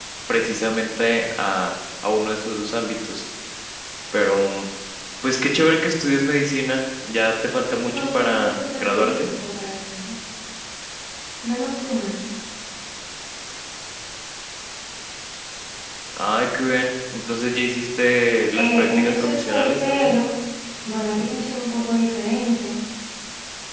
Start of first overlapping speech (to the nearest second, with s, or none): 8 s